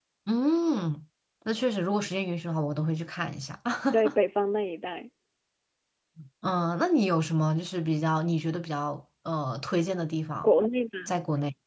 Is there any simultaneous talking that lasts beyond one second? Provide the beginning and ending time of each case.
none

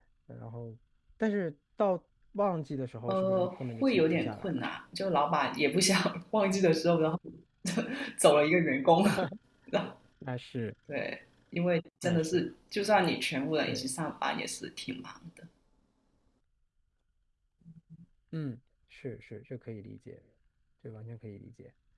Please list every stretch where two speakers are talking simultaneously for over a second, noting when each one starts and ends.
3.1-4.6

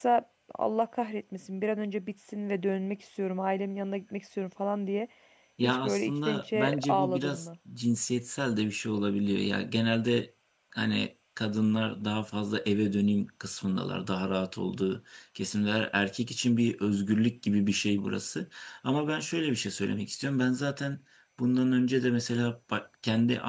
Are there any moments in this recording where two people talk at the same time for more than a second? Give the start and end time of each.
5.6-7.5

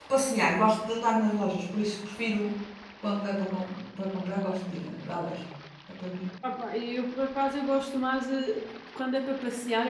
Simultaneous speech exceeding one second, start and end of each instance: none

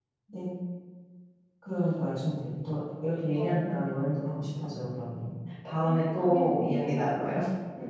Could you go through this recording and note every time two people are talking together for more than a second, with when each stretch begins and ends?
5.8-7.0

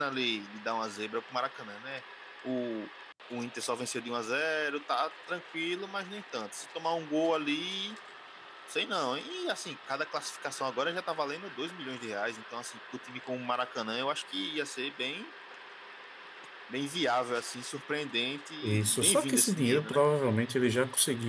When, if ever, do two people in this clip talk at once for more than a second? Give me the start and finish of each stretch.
18.6-20.0

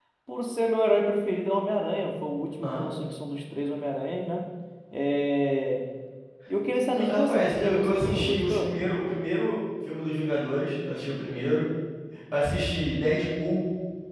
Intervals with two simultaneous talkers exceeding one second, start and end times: 6.9-8.8

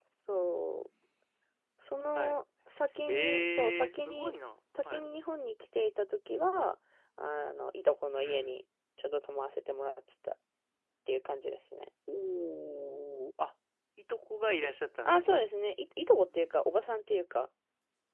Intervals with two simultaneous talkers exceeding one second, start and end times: 3.1-4.3

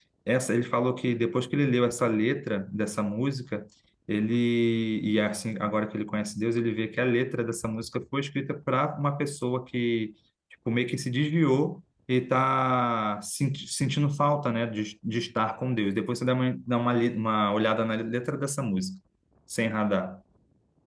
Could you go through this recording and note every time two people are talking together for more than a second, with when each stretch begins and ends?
none

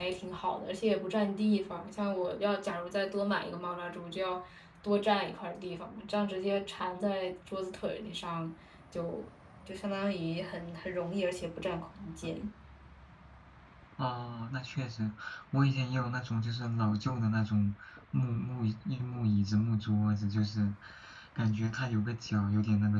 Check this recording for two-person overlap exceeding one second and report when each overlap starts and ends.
none

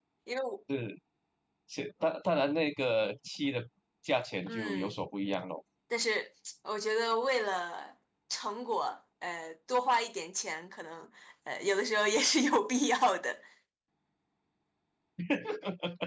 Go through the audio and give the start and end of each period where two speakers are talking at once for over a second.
none

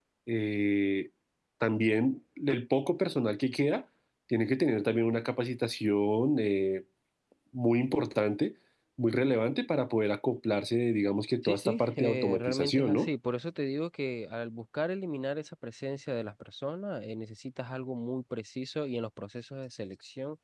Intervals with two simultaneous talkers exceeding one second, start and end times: 11.4-13.1

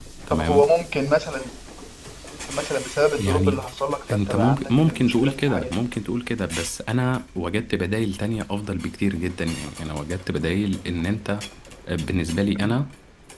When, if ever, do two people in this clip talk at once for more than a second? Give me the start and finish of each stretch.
4.1-5.8

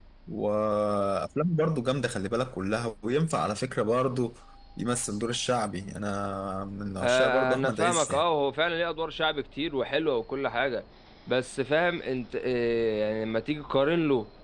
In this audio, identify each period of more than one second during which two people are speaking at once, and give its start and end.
7.0-8.2

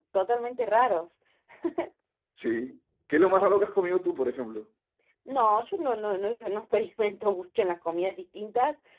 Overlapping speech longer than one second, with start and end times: none

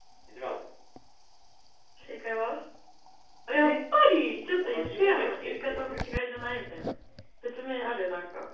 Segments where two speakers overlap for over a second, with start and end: 4.6-6.0

